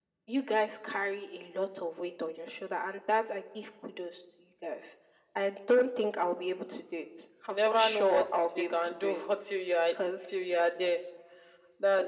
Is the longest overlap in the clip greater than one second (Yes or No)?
Yes